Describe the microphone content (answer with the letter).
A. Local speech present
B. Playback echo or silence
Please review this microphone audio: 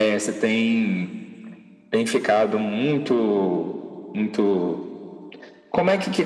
B